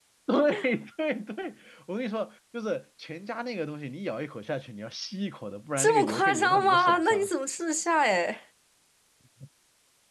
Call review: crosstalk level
present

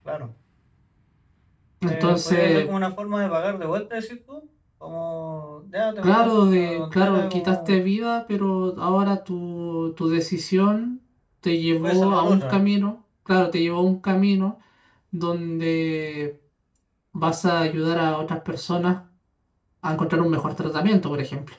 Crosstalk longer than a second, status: present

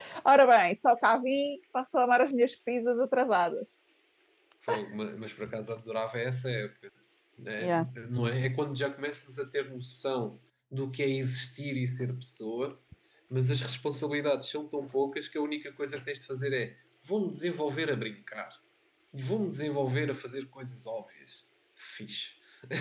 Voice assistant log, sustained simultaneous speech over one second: none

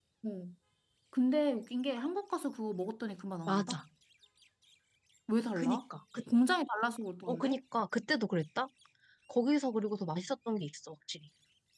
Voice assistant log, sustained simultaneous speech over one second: none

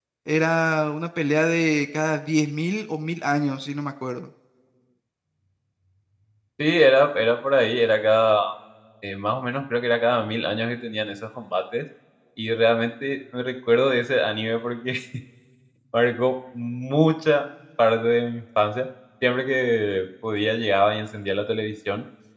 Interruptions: none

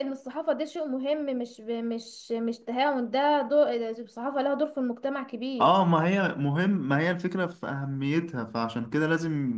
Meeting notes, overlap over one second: none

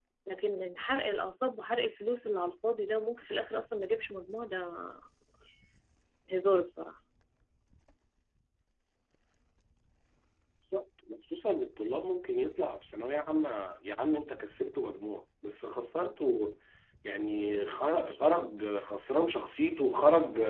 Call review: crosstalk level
none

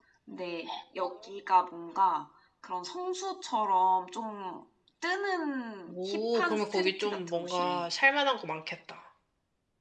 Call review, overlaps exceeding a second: present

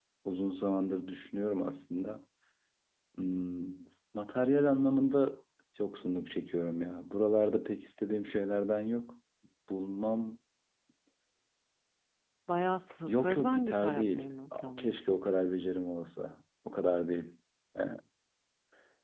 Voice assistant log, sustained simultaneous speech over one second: present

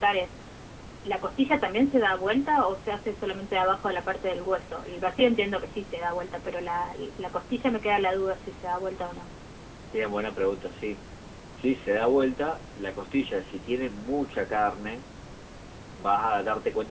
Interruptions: none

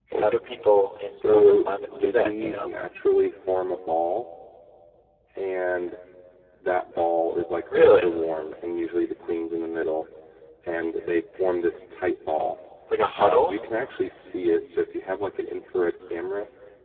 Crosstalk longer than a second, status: present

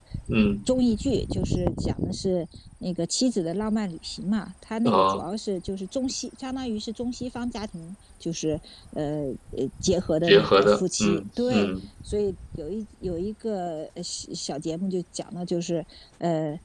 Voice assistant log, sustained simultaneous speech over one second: present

